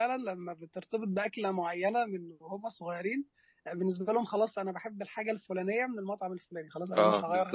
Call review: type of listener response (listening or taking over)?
taking over